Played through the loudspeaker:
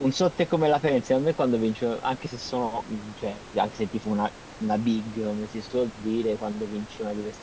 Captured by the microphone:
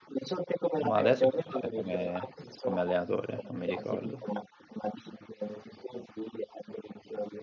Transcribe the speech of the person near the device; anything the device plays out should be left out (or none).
Ma adesso chi c'è come, come allenatore? Non mi ricordo.